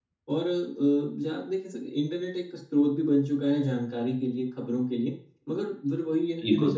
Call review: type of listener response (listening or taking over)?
listening